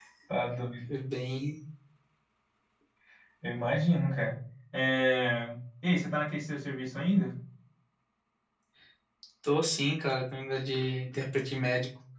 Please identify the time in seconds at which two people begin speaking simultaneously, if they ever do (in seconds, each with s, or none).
none